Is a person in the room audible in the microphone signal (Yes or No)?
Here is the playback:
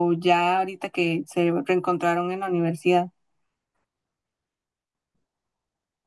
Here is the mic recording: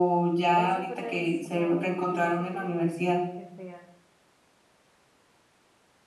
Yes